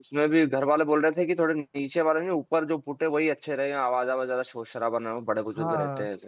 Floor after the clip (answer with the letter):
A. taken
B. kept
A